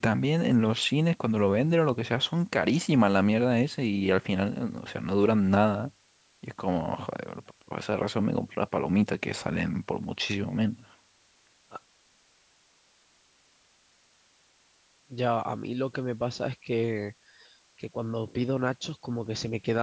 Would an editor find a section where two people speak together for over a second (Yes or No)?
No